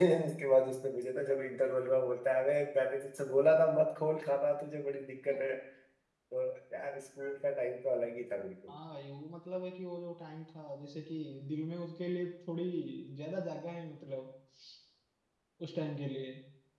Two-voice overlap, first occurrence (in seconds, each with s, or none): none